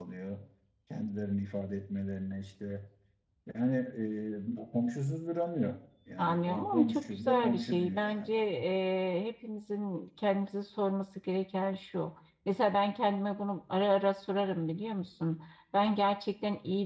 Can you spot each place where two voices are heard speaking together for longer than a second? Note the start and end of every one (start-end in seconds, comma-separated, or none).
6.2-8.3